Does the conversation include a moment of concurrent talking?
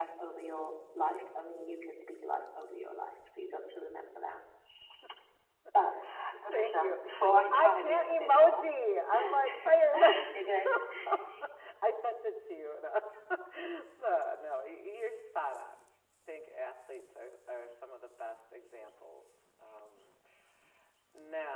Yes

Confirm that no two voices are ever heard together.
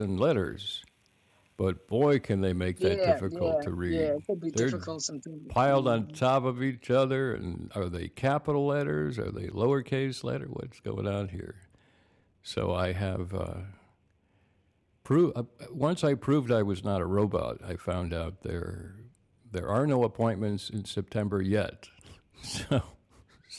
No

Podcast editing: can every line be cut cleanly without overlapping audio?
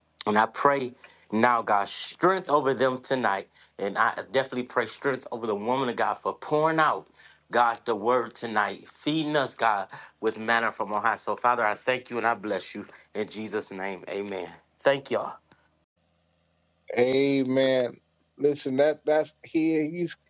Yes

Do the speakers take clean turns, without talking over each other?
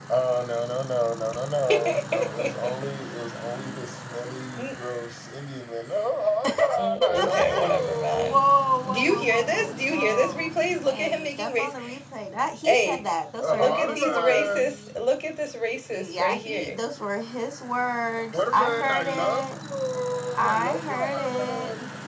No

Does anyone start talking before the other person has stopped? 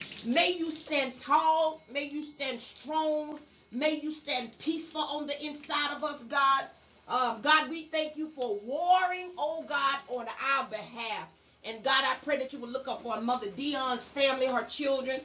No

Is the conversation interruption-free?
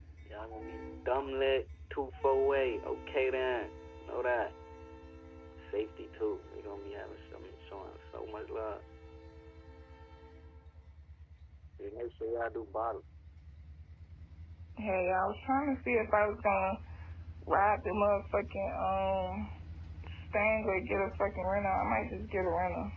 Yes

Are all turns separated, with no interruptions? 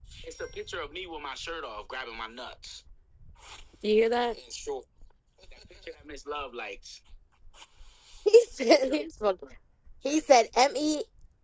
Yes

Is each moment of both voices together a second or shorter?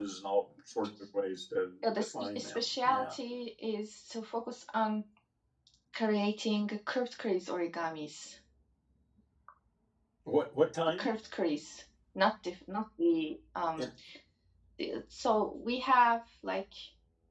No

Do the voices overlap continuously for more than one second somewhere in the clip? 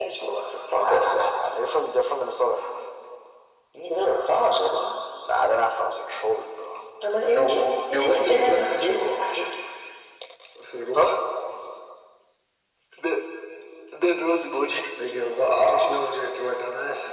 Yes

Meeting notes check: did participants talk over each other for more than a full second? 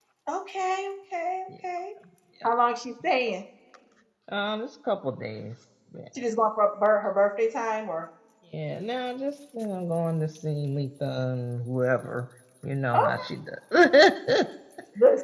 No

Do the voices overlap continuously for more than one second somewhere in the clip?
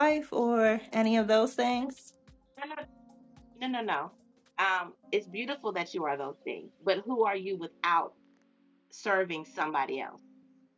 No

